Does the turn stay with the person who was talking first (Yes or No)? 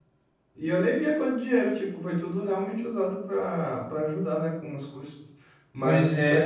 Yes